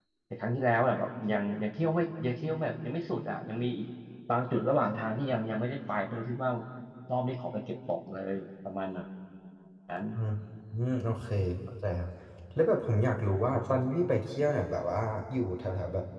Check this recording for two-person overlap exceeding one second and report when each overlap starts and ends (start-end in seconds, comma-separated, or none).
none